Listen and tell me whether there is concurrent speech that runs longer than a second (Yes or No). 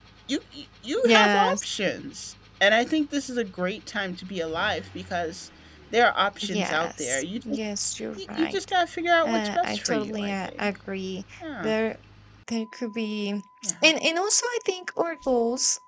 Yes